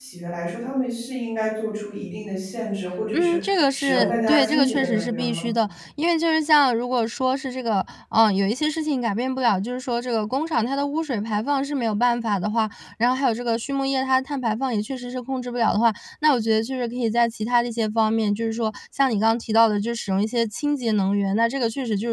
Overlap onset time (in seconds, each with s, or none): 3.1 s